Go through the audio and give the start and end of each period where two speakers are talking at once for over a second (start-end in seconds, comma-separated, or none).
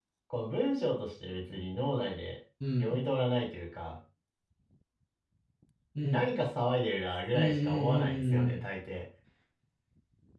7.3-8.6